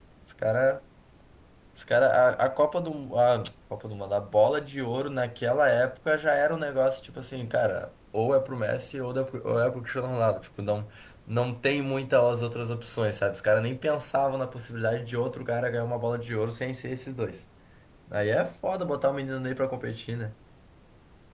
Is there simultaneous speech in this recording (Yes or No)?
No